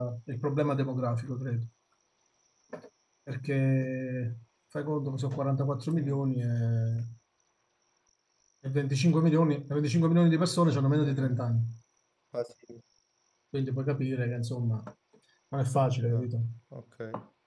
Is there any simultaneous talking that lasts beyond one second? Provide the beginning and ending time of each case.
none

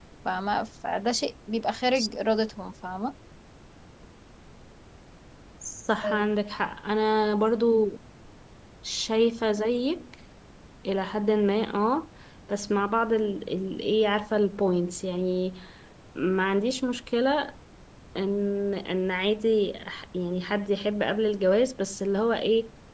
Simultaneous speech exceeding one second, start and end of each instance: none

